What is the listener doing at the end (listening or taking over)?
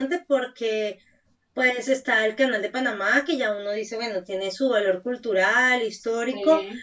listening